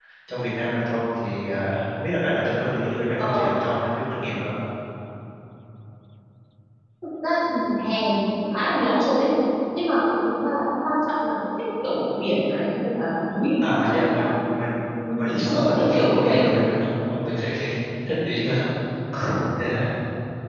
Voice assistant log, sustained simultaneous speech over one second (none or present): present